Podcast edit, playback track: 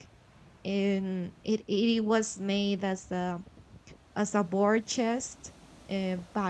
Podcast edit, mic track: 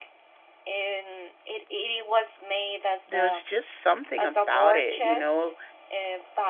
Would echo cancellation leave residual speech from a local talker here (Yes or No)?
Yes